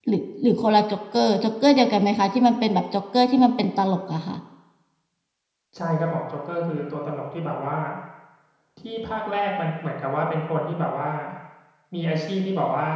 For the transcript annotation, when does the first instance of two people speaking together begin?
none

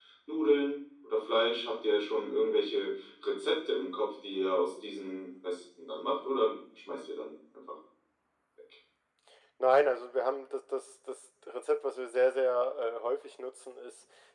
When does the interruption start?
none

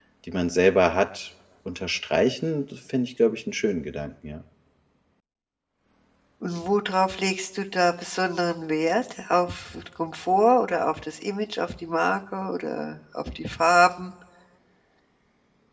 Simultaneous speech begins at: none

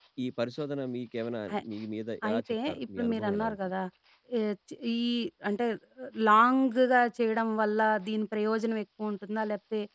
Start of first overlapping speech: 2.3 s

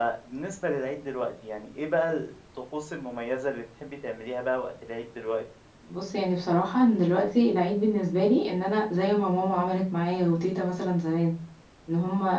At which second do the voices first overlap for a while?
none

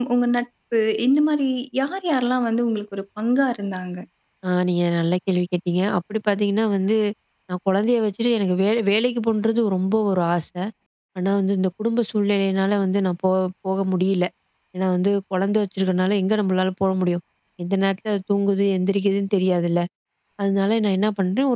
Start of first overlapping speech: none

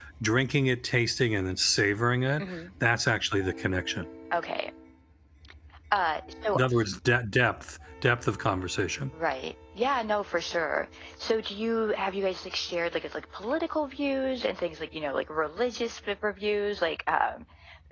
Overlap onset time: none

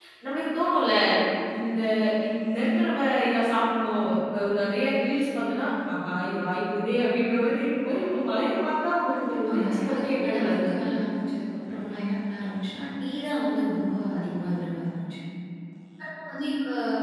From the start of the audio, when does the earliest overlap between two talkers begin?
9.1 s

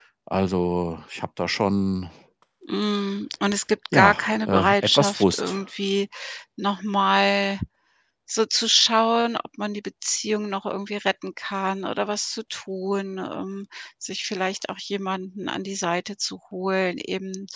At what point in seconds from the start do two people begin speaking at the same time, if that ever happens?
3.9 s

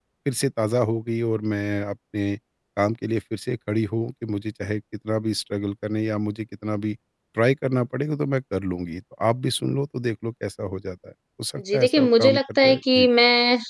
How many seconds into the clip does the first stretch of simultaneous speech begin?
11.6 s

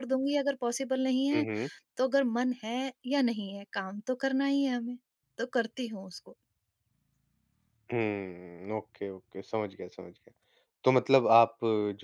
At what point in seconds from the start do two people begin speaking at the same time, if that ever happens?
none

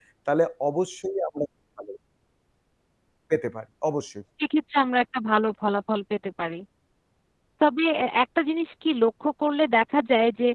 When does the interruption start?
none

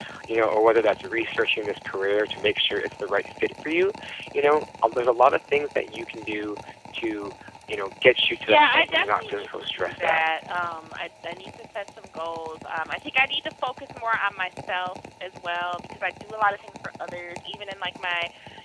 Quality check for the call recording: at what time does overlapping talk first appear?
8.3 s

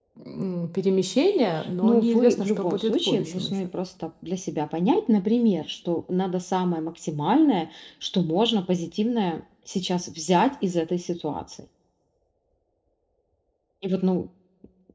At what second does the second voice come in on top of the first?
1.8 s

